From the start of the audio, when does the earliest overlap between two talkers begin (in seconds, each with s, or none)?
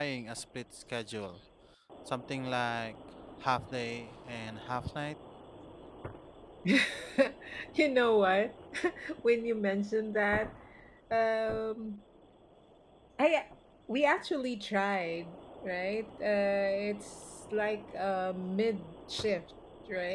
none